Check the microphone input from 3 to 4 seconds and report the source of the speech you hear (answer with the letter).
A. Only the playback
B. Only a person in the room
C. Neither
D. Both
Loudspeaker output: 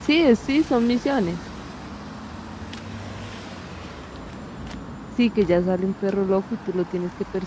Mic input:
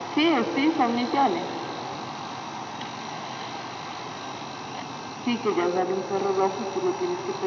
C